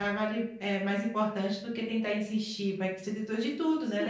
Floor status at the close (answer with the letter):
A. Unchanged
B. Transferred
B